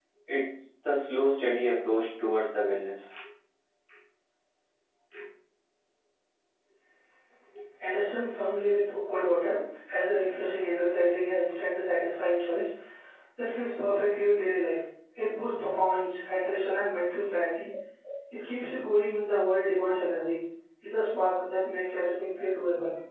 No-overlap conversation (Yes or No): Yes